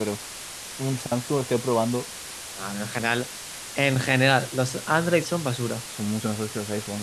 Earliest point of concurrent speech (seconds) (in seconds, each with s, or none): none